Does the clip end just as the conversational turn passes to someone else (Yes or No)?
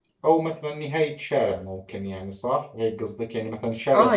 Yes